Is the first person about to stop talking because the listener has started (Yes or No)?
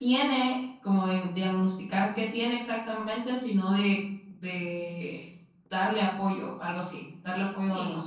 Yes